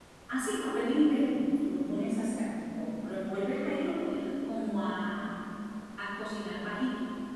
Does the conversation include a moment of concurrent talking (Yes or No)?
No